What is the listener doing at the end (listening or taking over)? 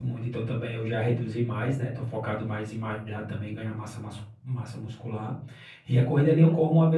listening